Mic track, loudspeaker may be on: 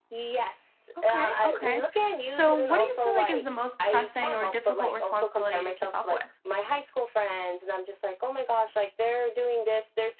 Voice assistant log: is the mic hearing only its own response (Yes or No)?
No